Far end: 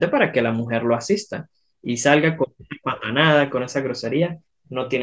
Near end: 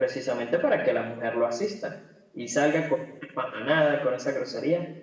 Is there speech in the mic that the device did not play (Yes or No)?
No